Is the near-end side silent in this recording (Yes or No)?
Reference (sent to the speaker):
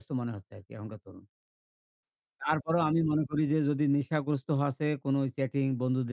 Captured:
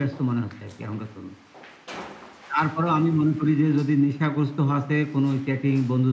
Yes